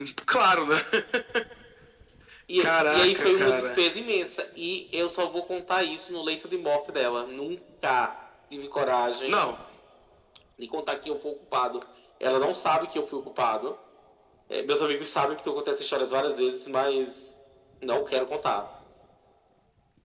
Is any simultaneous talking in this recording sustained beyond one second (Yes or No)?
Yes